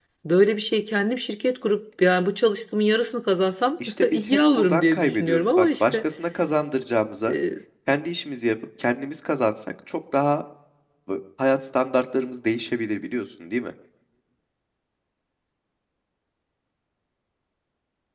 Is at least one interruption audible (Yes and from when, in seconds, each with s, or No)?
Yes, from 3.8 s